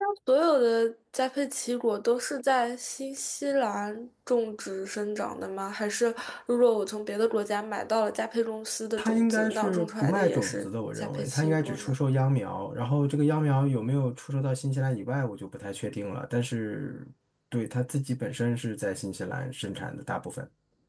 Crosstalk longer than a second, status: present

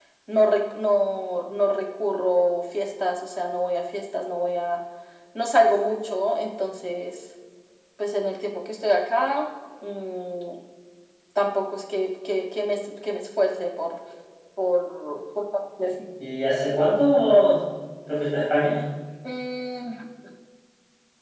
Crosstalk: none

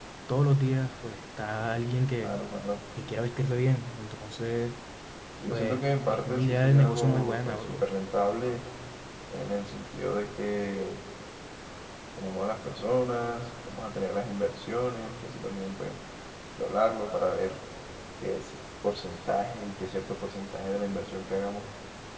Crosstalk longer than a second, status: present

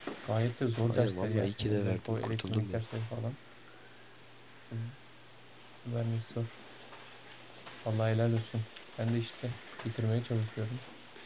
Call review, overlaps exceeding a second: present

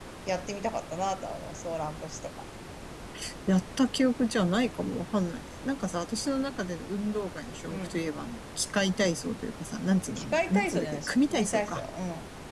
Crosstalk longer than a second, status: present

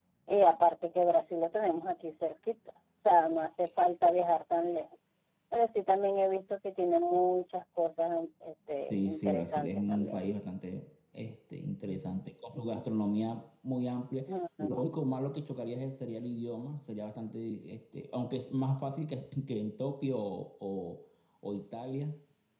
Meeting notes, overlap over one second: present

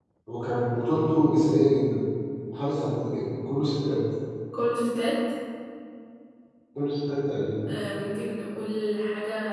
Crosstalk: none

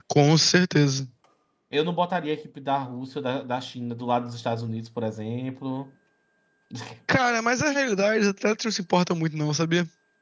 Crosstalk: none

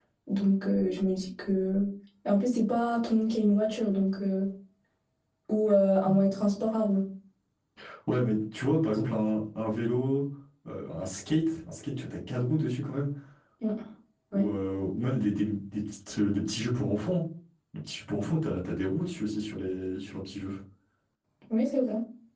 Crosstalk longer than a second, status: none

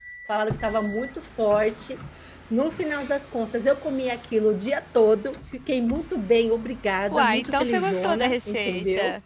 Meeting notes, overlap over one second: present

